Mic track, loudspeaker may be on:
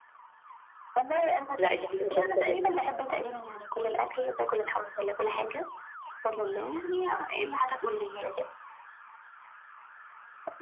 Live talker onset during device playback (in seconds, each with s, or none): 1.3 s